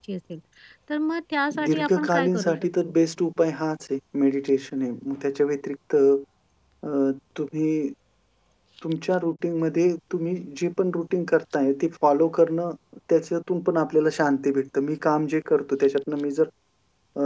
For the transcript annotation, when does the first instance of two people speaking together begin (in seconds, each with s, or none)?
1.5 s